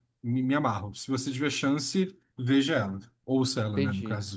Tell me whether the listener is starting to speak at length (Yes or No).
Yes